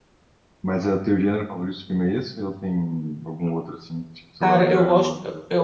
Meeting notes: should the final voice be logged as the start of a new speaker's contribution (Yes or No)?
Yes